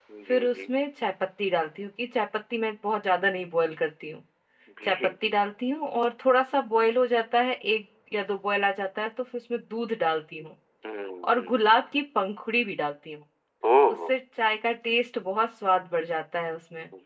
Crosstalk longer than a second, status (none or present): none